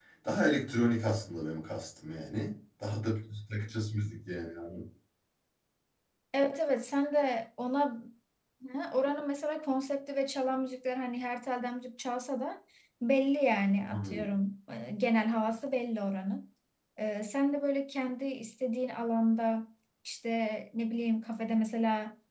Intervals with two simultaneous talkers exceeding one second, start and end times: none

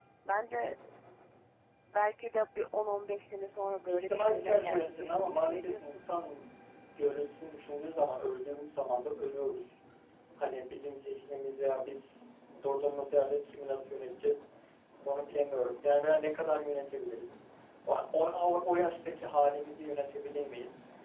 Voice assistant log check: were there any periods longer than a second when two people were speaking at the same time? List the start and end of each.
3.9-6.0

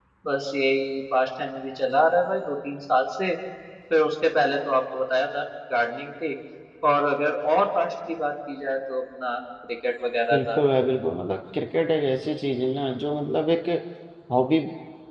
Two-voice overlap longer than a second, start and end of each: none

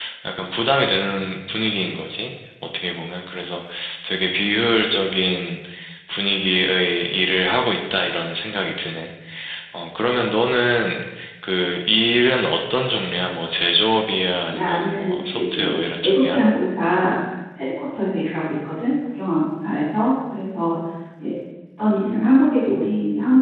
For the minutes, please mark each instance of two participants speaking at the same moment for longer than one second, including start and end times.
14.5-16.4

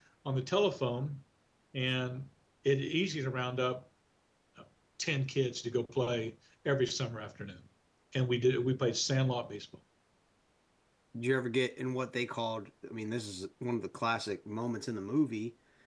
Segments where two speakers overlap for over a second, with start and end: none

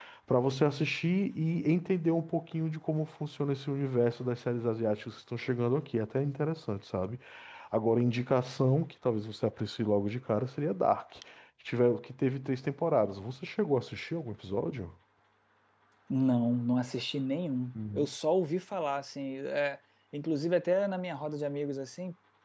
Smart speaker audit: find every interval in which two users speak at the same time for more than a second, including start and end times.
none

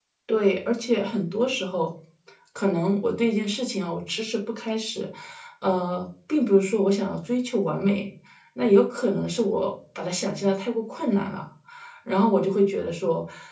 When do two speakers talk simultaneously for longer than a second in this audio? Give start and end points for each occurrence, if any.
none

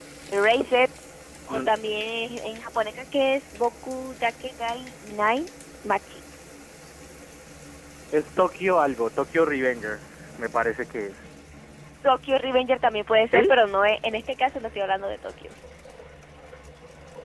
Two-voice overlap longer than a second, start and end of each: none

